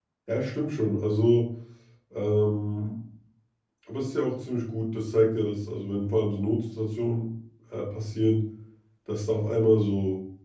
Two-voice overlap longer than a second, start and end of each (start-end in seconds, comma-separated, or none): none